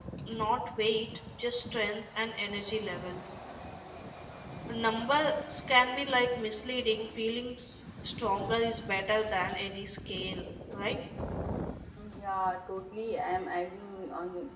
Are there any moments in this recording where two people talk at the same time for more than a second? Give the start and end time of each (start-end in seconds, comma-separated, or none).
none